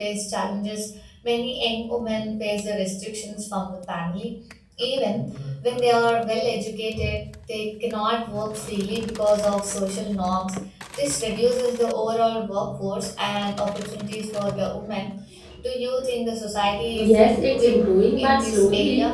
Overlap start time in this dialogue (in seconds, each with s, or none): 16.7 s